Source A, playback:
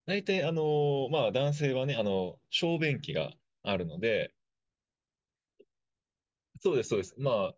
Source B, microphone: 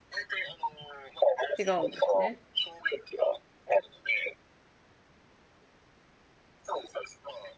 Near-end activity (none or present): present